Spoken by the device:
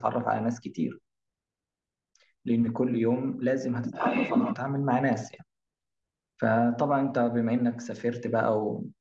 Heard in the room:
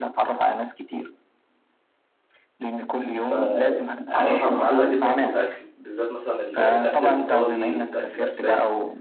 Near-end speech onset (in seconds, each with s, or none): 3.1 s